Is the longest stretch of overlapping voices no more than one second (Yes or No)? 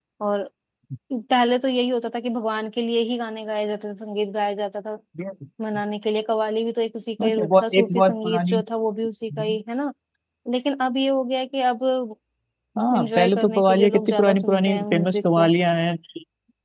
No